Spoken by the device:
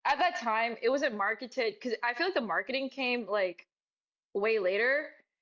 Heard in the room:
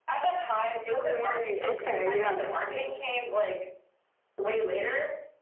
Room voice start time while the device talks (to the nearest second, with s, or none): 1 s